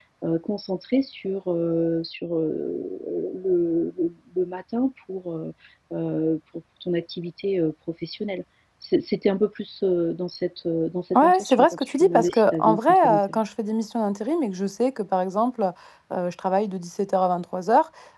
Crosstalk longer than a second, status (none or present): present